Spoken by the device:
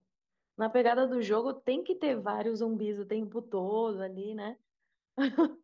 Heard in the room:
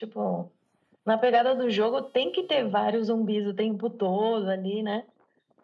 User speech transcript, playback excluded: none

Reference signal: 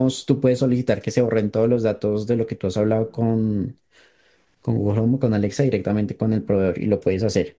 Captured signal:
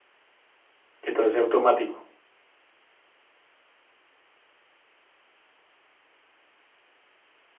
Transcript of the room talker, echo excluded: que todo sea automático.

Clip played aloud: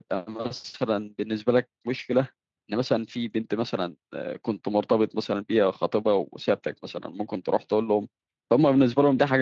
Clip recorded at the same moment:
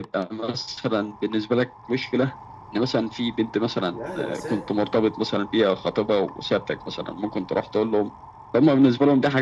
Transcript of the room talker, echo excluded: الاهل الاساس

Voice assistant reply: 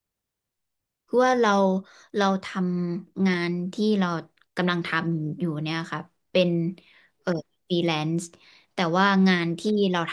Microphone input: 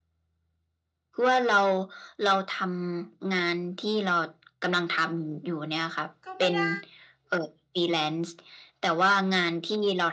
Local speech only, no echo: ก็ไม่ได้

